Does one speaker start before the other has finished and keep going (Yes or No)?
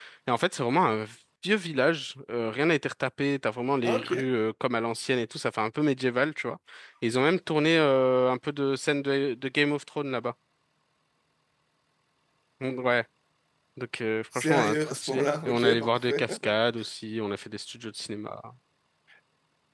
Yes